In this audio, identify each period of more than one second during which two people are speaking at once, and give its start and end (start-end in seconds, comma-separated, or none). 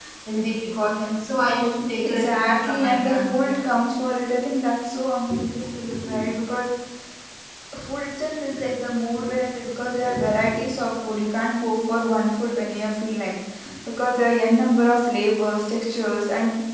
2.0-3.6